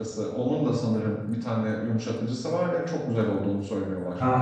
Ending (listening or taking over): taking over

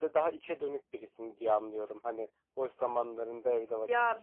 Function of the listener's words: taking over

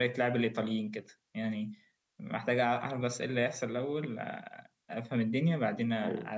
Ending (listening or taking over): listening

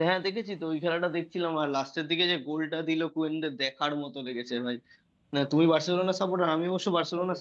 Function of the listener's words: listening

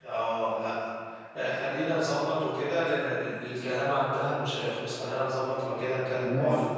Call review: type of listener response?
listening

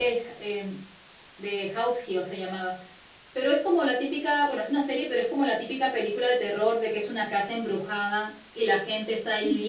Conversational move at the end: listening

